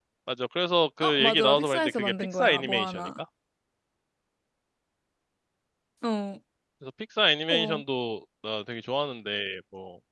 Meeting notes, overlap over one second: present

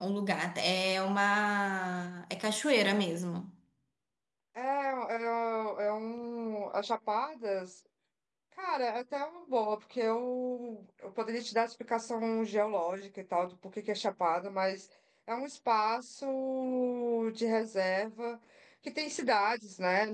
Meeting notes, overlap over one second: none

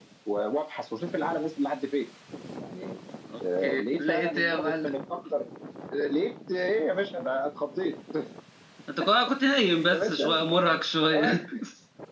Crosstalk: present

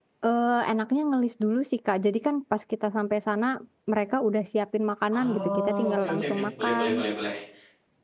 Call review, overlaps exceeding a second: present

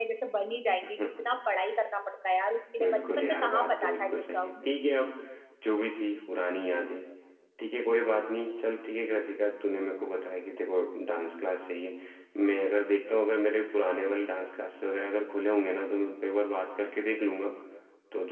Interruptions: present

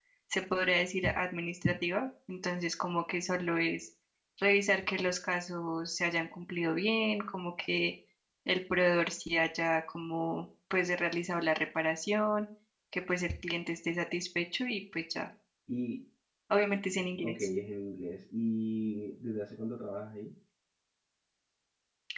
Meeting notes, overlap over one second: none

